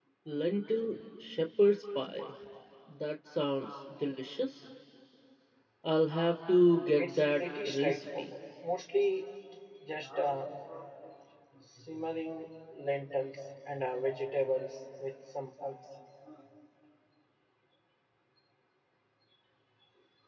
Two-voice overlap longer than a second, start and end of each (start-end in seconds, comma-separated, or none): 7.0-8.3